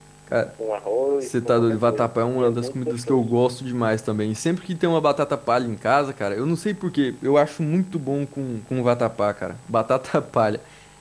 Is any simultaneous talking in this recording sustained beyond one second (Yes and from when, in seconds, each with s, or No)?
Yes, from 1.2 s